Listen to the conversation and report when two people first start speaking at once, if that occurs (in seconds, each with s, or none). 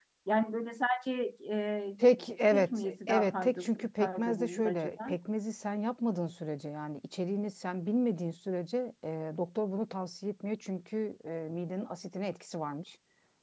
2.5 s